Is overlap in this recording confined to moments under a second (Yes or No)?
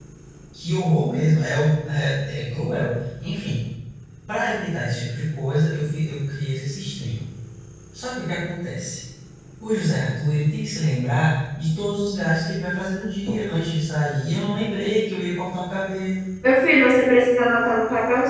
Yes